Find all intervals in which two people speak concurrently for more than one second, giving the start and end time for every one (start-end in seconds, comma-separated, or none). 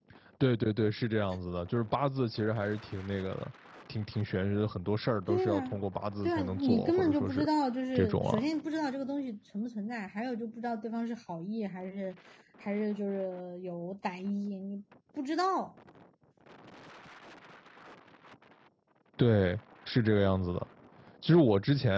6.2-7.5